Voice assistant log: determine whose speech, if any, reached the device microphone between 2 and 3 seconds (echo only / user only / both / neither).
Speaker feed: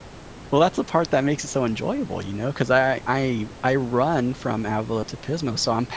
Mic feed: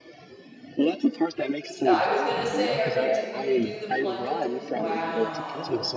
both